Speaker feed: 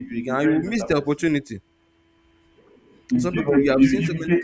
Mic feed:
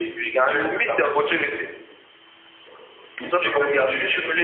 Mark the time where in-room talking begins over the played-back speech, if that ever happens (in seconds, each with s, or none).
none